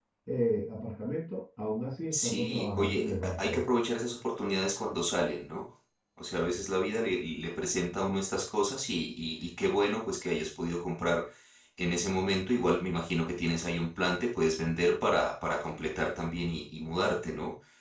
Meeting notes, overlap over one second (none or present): present